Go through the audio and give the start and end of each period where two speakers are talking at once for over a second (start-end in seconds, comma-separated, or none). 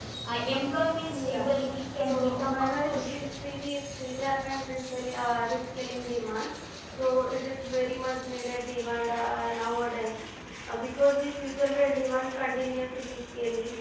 2.0-3.2